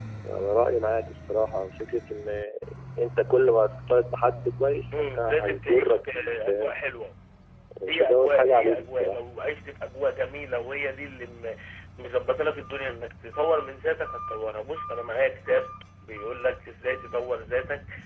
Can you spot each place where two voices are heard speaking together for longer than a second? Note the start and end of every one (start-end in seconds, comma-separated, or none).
4.9-6.7, 7.9-9.2